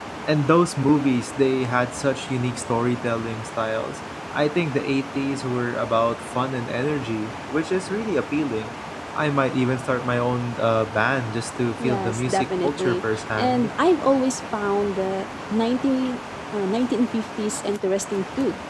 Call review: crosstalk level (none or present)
present